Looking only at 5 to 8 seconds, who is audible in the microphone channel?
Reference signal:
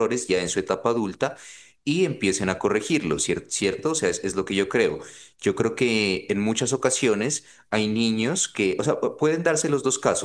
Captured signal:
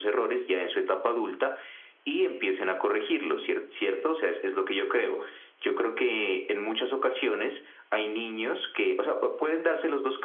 echo only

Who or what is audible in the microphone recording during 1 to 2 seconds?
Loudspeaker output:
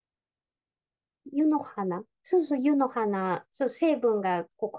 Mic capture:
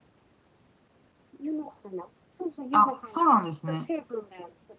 echo only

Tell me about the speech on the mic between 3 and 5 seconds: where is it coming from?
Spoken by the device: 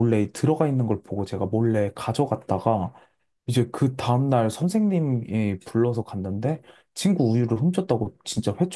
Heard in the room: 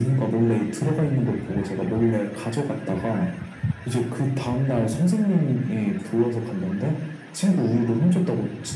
echo only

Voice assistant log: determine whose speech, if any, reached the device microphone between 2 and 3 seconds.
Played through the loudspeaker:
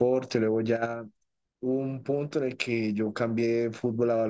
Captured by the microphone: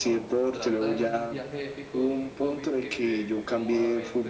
both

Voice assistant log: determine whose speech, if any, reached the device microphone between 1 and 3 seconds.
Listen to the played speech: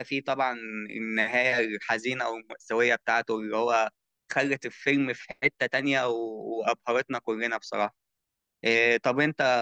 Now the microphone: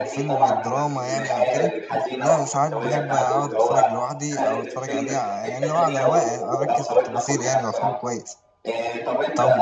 both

